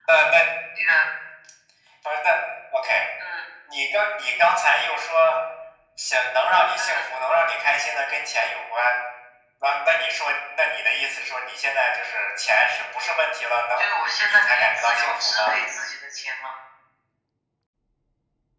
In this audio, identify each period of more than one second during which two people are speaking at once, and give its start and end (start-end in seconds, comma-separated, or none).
14.3-15.5